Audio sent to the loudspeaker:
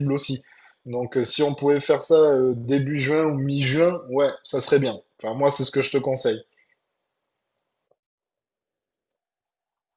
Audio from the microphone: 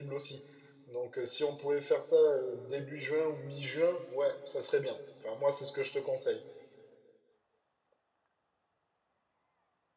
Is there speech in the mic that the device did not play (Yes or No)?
No